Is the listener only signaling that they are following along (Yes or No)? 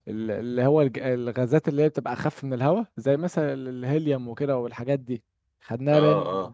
Yes